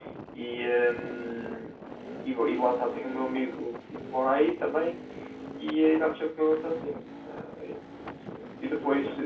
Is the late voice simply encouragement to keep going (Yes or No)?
Yes